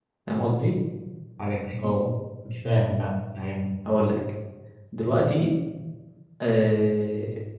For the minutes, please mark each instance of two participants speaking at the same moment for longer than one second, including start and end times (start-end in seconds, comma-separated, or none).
none